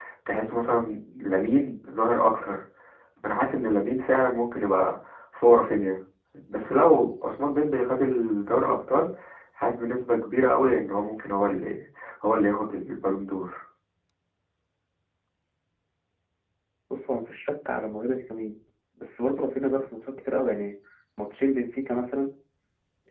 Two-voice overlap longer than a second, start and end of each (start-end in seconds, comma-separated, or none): none